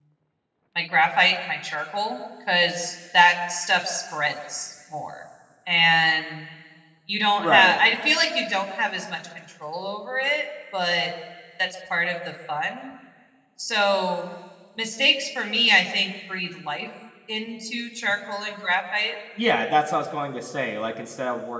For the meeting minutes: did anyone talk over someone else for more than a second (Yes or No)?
No